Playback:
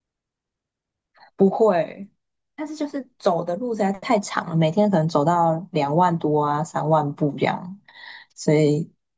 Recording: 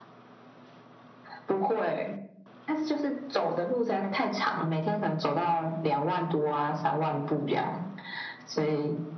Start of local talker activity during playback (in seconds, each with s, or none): none